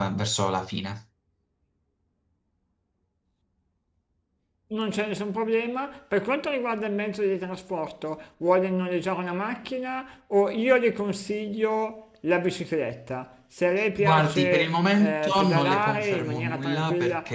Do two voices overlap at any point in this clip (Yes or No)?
Yes